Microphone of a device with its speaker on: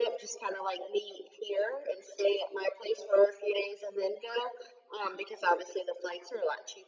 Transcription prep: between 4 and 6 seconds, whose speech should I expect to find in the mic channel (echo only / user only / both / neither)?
echo only